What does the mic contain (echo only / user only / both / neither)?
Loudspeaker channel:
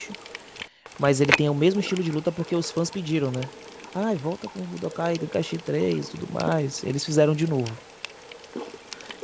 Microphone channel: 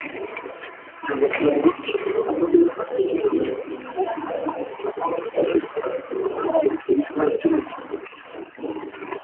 echo only